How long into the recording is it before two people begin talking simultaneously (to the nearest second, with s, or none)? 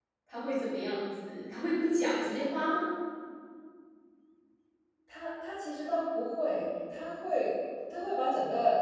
none